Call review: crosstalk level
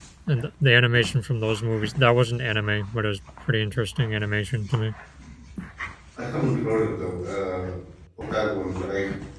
none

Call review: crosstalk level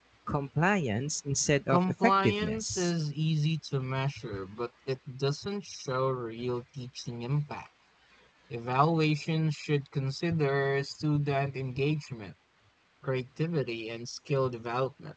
present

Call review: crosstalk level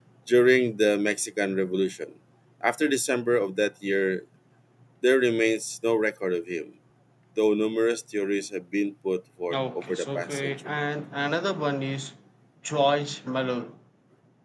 present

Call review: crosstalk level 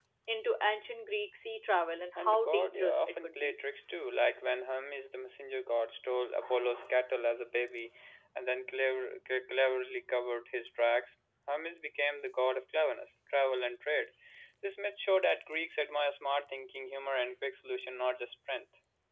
present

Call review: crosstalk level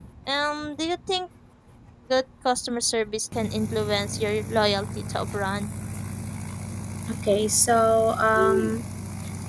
none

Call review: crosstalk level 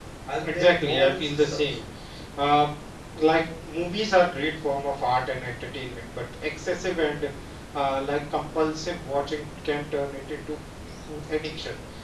present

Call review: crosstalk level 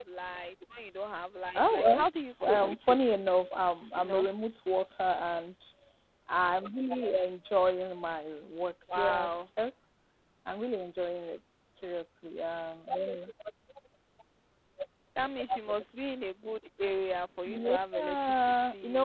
present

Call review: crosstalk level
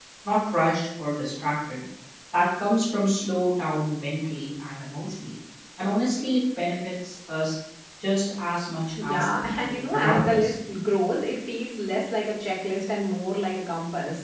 present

